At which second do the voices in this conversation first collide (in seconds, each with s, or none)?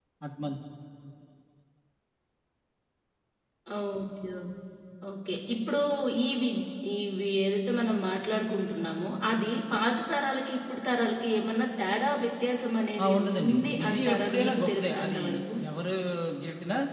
13.0 s